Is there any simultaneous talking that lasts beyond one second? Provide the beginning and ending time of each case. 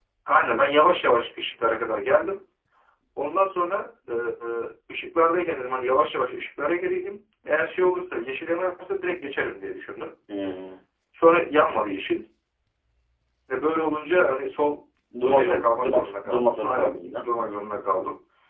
15.3-17.2

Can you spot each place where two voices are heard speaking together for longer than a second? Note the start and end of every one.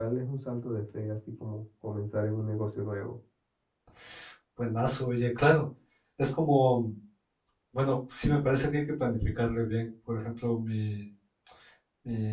none

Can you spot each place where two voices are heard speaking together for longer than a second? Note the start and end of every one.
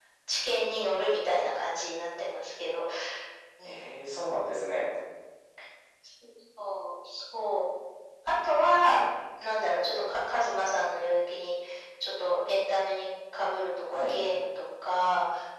none

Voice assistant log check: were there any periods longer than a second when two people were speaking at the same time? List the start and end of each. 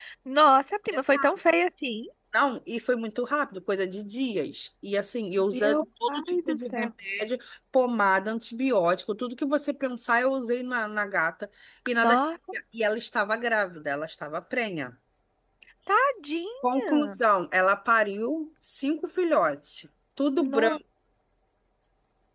5.5-6.9

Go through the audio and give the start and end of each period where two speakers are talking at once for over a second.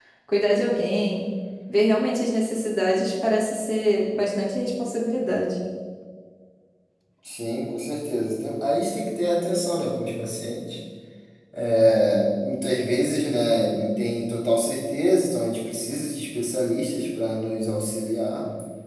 none

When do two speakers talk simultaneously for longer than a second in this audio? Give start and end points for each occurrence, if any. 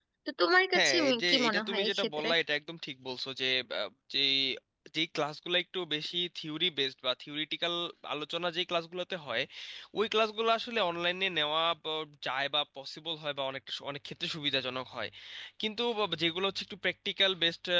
0.8-2.3

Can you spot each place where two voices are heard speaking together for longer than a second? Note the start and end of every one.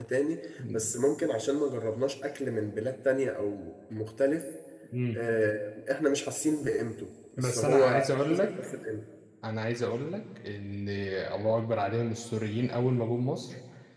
7.4-8.7

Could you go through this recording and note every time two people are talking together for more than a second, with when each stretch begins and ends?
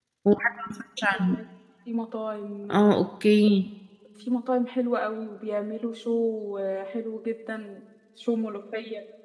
none

